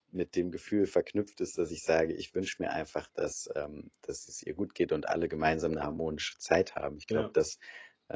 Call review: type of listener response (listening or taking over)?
listening